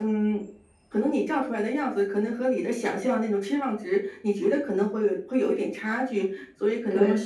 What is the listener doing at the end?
listening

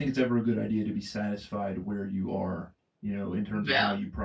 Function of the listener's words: listening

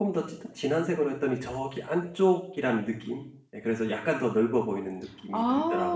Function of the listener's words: taking over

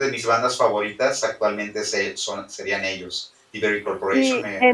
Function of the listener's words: taking over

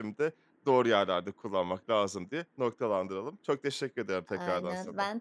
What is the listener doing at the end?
taking over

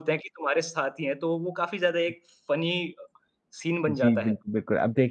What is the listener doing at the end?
taking over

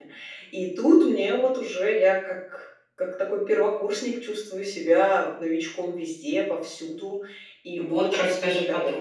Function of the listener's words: taking over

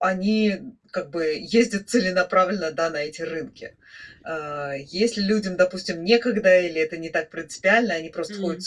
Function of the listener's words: listening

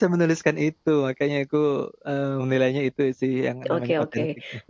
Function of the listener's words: taking over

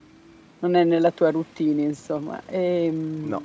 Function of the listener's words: listening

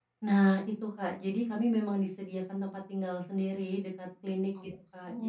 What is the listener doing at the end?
listening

